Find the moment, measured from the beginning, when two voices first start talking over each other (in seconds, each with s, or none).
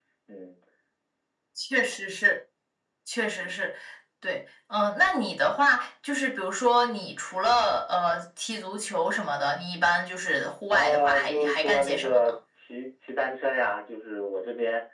10.7 s